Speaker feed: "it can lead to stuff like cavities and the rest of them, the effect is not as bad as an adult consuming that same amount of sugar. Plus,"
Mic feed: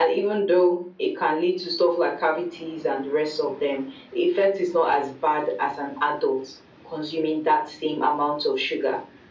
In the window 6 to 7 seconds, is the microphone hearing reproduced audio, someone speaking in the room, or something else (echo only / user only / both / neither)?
echo only